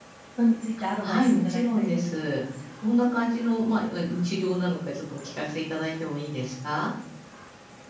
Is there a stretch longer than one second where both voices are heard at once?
Yes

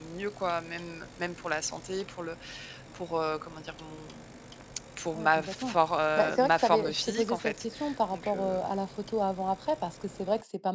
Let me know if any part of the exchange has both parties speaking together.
Yes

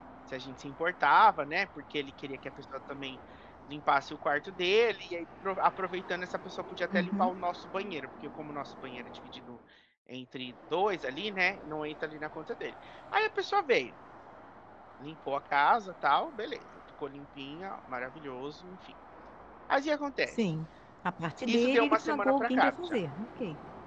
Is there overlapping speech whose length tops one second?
Yes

